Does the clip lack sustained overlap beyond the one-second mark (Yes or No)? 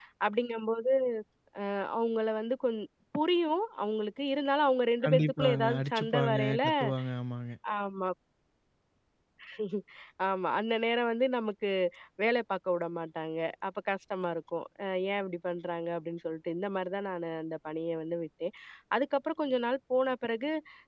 No